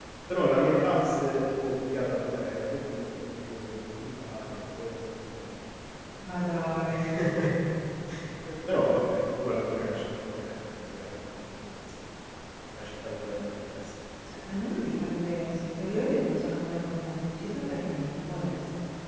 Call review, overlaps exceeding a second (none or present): none